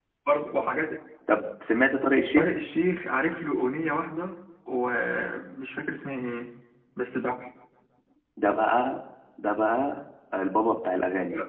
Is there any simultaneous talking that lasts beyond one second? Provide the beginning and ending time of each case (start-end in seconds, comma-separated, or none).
none